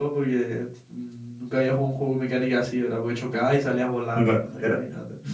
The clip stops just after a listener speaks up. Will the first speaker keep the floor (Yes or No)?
No